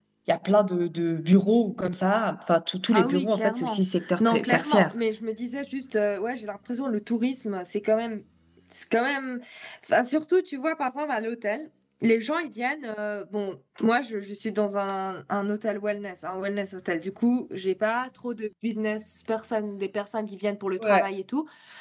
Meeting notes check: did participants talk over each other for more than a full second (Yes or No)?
Yes